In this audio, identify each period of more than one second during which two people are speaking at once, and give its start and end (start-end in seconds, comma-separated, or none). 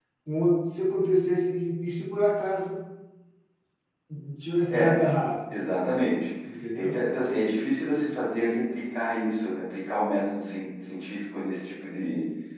none